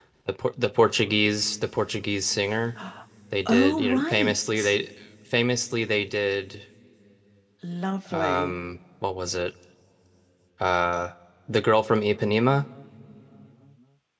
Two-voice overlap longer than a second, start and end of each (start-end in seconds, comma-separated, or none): 3.5-4.8